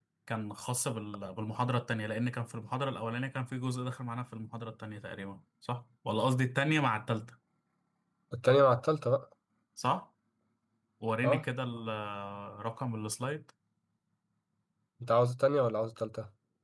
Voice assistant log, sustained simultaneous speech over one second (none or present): none